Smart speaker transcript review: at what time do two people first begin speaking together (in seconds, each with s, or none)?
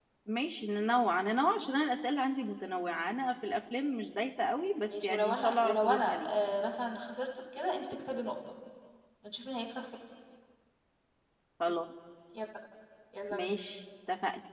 4.9 s